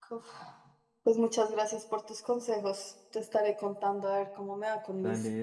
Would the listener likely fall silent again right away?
No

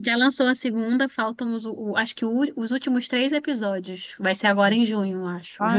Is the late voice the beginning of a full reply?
Yes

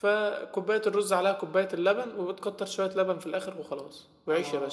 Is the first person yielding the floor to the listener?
No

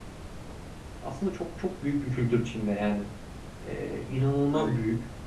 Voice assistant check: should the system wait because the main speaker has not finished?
Yes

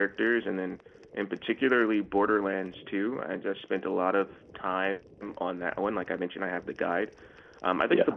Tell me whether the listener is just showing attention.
Yes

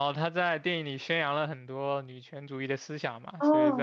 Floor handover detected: Yes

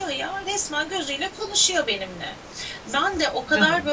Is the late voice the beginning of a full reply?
No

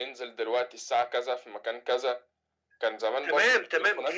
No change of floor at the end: No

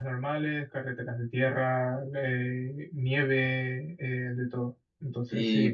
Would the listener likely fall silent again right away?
No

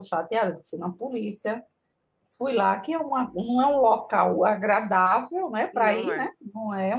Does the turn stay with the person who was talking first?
Yes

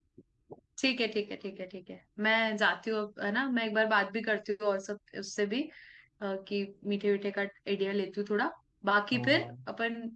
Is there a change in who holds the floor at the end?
No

